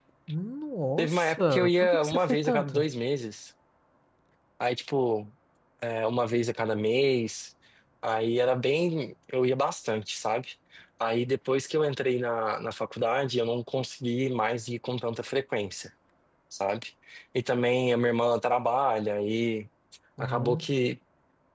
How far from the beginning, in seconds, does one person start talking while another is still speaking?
1.0 s

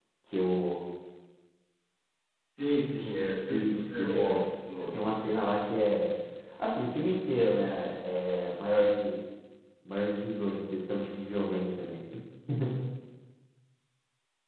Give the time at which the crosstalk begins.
3.5 s

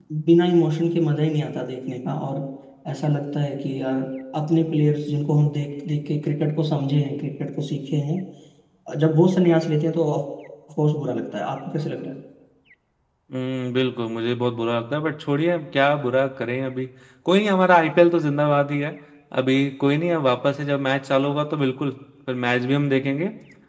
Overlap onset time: none

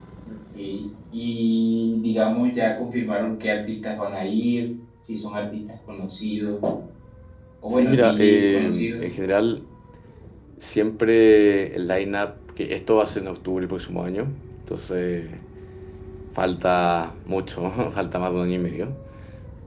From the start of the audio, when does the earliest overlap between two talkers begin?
7.7 s

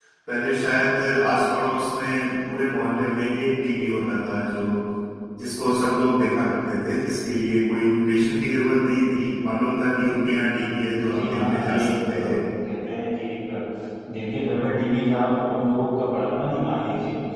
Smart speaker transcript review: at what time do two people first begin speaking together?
11.0 s

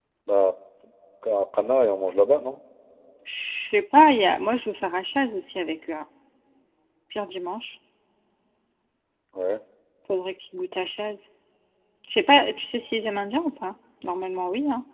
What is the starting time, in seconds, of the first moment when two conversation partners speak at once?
none

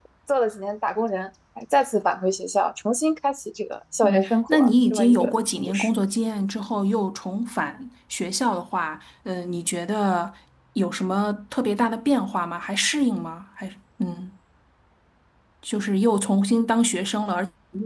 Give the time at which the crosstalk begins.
4.0 s

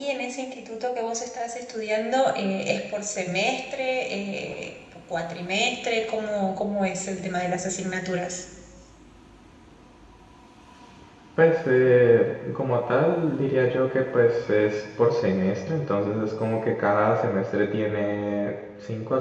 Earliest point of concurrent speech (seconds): none

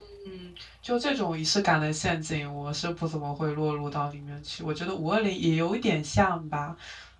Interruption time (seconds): none

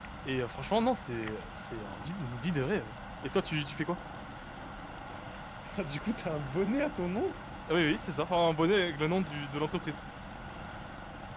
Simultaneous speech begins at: none

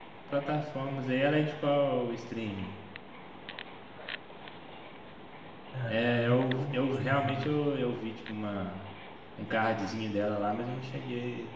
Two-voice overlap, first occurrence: 5.9 s

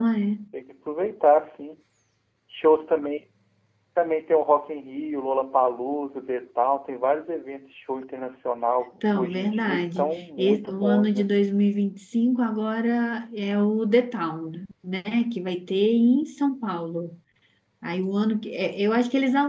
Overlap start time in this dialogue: 9.0 s

